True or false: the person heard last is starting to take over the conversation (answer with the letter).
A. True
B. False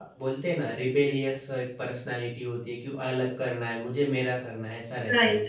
A